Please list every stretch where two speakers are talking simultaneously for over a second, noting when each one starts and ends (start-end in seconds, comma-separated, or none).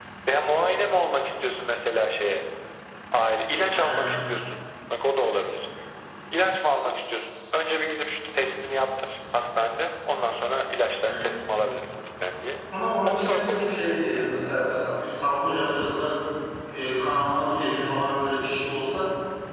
13.1-14.3